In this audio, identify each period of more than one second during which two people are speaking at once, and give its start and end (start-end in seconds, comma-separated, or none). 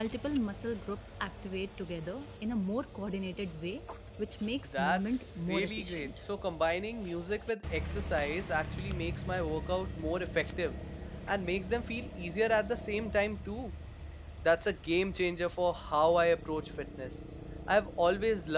4.7-6.1